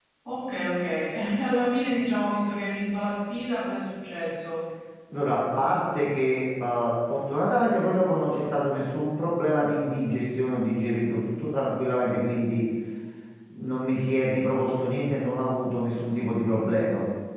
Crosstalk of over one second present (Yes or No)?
No